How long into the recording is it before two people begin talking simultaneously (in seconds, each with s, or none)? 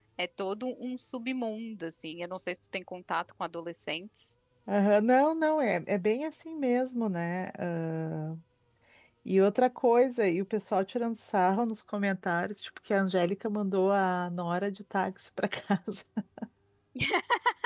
none